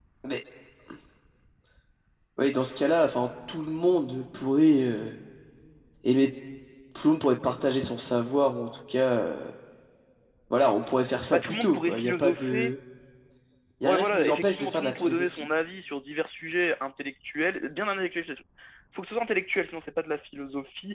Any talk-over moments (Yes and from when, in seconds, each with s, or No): Yes, from 11.3 s